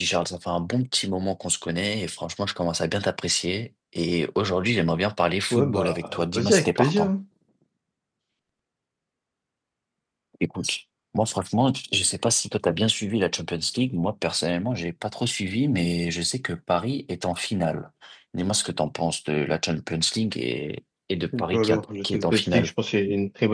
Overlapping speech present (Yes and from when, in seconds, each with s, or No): Yes, from 5.5 s